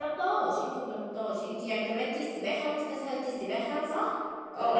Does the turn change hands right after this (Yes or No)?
Yes